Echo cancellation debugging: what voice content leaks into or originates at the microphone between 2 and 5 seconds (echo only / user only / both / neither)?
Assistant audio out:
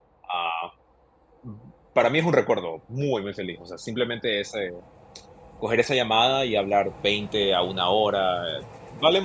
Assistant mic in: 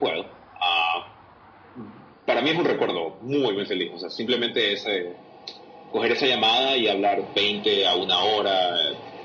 echo only